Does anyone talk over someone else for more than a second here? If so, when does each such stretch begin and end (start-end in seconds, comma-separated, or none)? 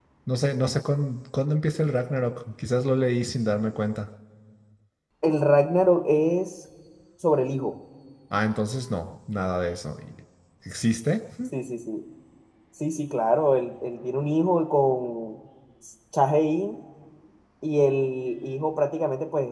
none